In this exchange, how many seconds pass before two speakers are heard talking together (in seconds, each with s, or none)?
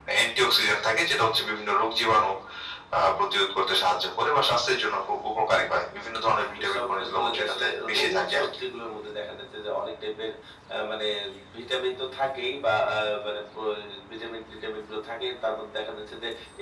6.2 s